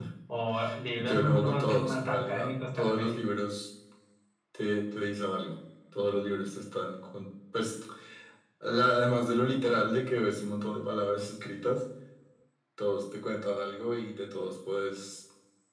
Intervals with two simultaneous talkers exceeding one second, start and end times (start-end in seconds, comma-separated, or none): 1.0-3.2